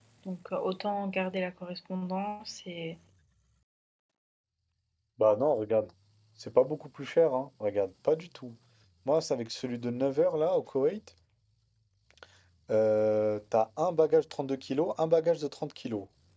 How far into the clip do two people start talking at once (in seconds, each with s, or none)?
none